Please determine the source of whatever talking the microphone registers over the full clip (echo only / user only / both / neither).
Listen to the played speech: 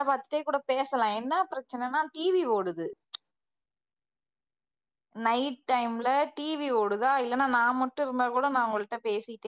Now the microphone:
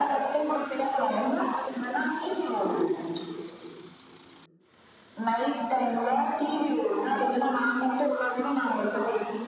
echo only